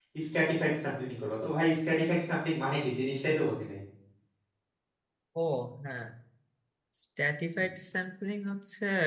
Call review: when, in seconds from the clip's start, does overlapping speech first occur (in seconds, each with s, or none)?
none